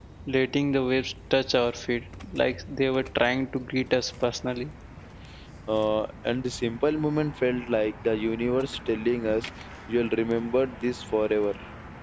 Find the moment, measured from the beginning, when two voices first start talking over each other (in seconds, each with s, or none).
none